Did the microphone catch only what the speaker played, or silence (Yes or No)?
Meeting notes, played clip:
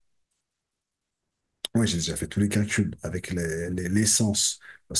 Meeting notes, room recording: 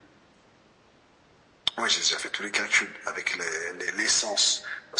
Yes